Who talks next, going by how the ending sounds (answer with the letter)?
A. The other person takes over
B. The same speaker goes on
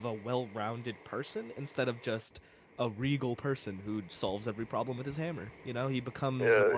A